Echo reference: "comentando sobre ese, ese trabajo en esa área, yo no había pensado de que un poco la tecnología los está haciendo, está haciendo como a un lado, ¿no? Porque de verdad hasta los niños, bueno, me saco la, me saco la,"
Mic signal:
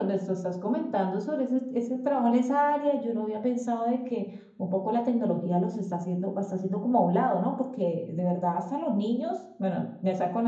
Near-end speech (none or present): none